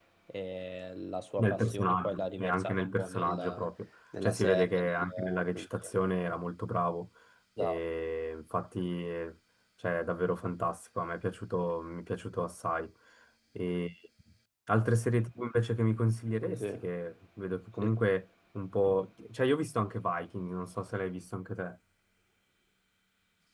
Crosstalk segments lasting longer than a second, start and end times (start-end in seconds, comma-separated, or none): 1.4-3.7, 4.2-5.7